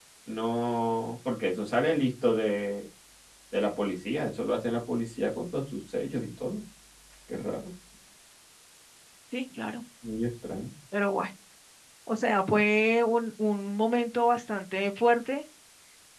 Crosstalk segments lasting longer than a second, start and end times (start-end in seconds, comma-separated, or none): none